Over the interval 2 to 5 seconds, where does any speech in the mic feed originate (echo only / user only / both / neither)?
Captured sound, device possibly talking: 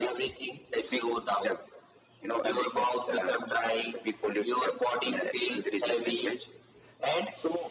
echo only